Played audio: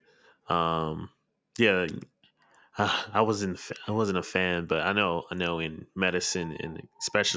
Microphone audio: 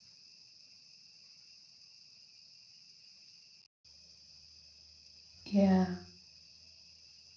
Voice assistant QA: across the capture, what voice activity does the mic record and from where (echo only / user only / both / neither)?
user only